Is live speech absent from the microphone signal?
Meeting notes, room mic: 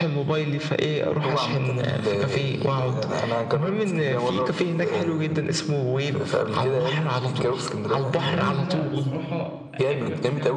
No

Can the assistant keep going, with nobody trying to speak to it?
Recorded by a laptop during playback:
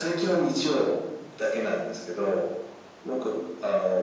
Yes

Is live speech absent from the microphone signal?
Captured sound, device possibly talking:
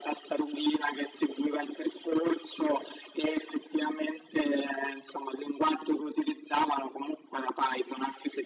Yes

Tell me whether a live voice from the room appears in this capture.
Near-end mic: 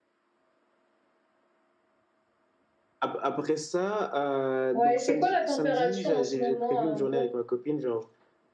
Yes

